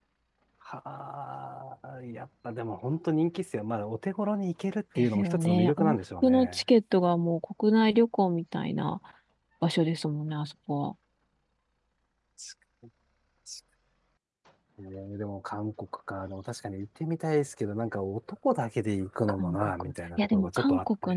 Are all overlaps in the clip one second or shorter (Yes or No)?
No